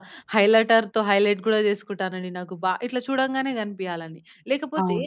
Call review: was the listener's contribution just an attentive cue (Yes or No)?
Yes